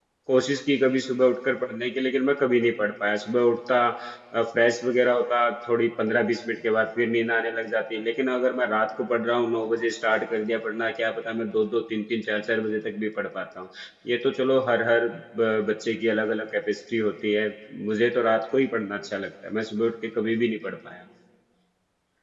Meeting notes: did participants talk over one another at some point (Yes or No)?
No